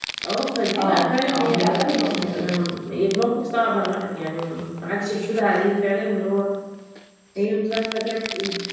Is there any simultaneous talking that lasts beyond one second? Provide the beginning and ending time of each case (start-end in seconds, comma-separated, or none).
0.8-2.4